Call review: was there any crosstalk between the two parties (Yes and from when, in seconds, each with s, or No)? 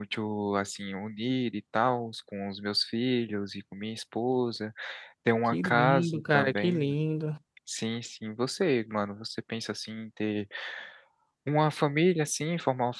Yes, from 5.5 s